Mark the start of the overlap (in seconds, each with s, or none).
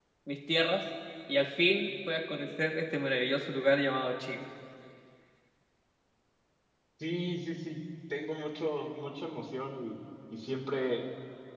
none